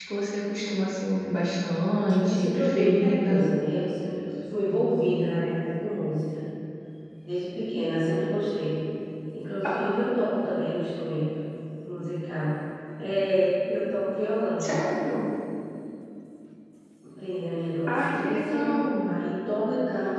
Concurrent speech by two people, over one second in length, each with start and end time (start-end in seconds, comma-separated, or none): 2.2-3.5, 17.9-19.2